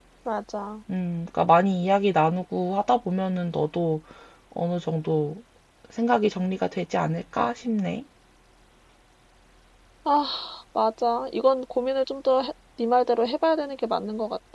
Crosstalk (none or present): none